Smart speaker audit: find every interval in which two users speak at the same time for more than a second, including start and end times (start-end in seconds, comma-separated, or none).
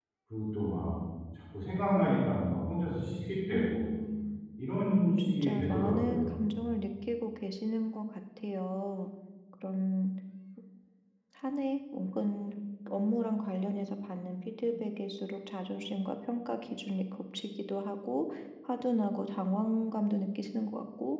5.2-6.4